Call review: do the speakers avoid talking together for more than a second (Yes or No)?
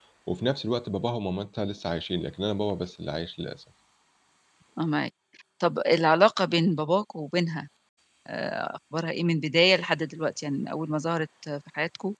Yes